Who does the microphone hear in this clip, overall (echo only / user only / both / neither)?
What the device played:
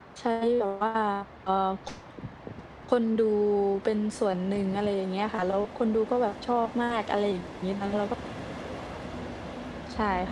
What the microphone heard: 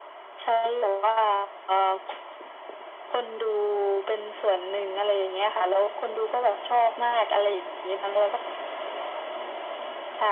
echo only